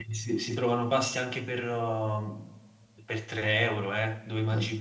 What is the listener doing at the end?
taking over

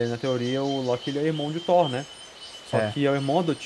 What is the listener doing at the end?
listening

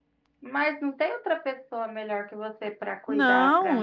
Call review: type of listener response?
taking over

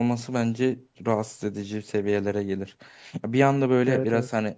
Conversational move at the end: listening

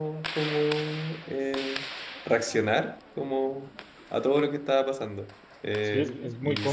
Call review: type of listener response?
taking over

